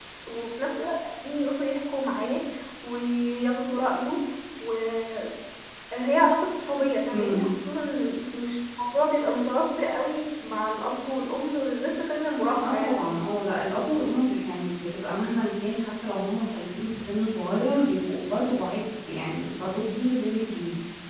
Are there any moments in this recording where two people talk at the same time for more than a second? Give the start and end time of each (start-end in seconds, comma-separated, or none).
none